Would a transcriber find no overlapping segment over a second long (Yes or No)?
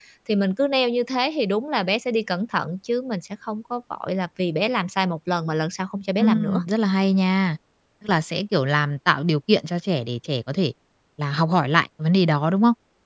Yes